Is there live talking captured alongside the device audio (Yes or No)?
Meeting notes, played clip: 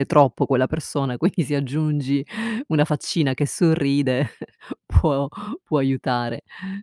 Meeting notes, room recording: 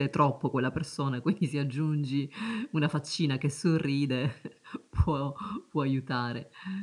No